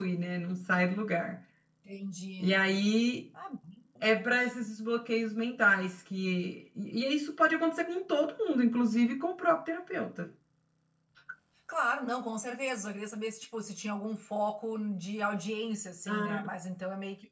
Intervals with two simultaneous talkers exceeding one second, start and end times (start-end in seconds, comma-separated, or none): none